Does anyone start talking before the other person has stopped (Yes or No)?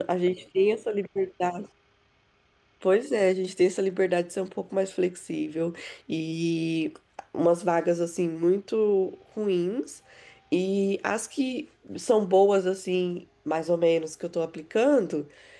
No